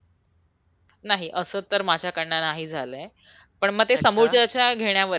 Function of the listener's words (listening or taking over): listening